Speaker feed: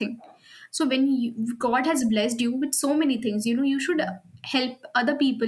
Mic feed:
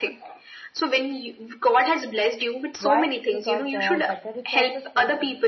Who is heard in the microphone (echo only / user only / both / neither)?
both